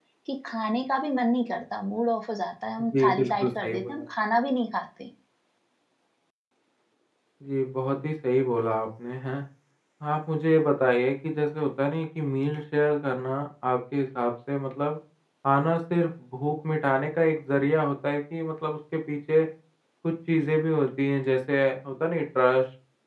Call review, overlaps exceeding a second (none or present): present